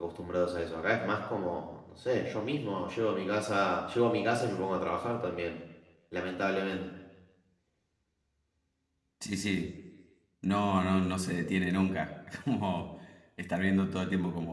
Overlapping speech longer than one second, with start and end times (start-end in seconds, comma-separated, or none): none